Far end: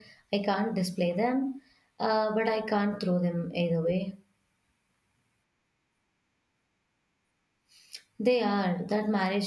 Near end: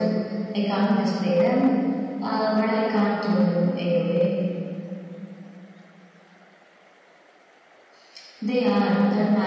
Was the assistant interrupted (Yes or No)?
No